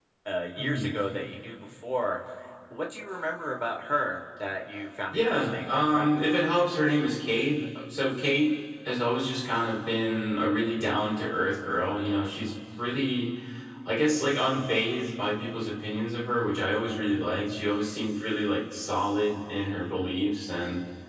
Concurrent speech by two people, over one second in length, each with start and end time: 5.1-6.3

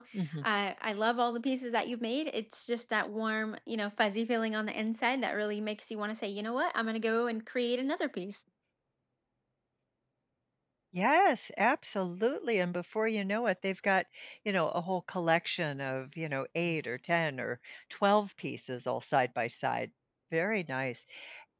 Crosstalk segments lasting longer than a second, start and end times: none

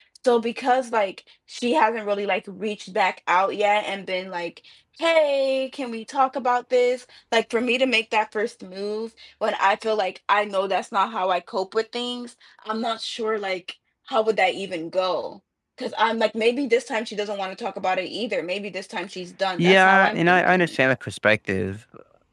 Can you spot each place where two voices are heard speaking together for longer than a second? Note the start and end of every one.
19.6-20.8

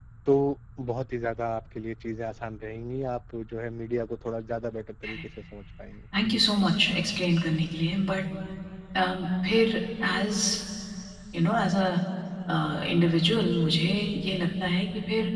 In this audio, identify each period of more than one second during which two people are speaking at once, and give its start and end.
none

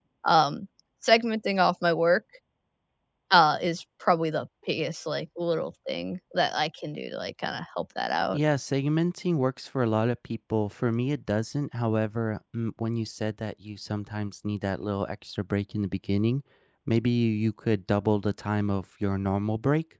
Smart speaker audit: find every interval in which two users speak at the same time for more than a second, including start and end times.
none

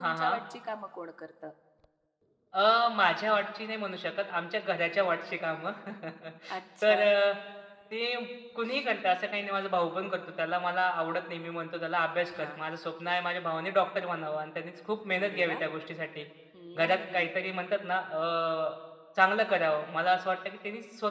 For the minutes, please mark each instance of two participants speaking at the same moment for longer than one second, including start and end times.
none

